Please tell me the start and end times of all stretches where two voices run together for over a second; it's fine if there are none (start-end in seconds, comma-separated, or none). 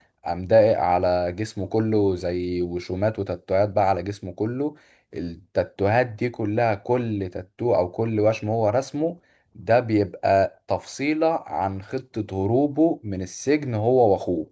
none